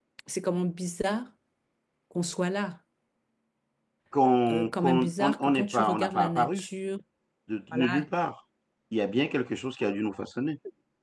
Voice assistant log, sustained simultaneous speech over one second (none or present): present